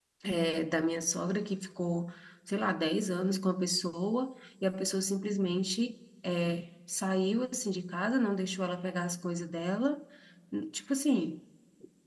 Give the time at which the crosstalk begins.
none

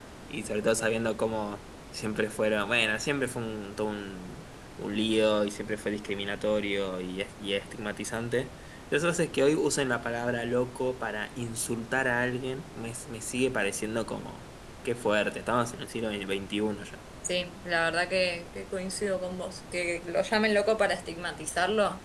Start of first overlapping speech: none

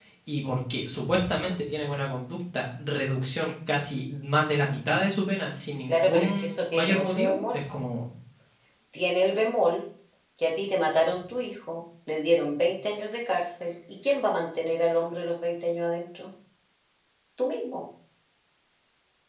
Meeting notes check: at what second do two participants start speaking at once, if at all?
5.9 s

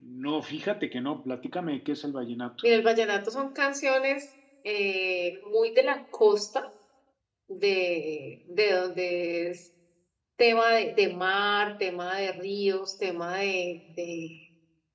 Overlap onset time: none

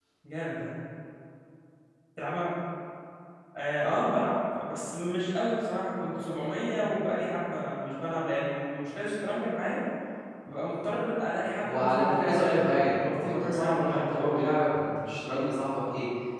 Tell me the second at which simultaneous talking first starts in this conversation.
11.6 s

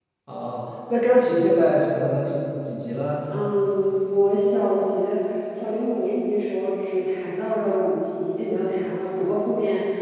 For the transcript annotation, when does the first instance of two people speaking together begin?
none

